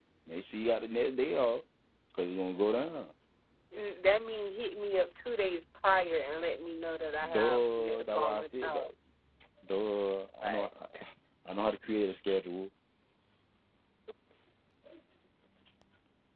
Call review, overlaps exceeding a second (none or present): present